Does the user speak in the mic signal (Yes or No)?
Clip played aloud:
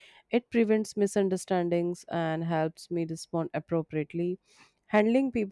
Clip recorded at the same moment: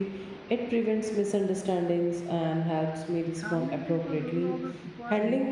Yes